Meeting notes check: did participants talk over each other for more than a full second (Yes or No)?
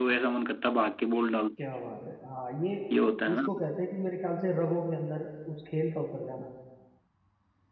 No